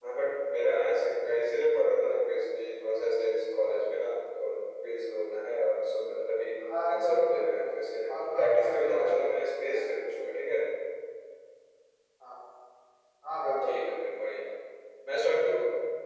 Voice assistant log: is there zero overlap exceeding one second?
No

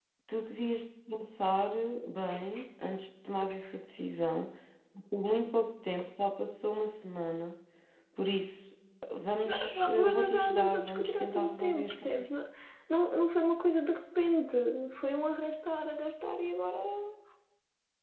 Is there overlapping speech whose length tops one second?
Yes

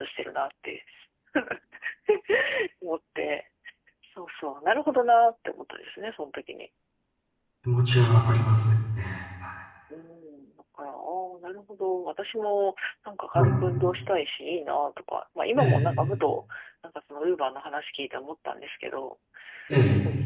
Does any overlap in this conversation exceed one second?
No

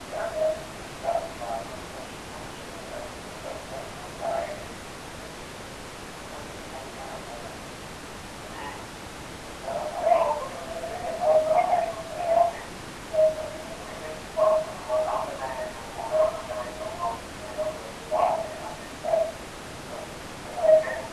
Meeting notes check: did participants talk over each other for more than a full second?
No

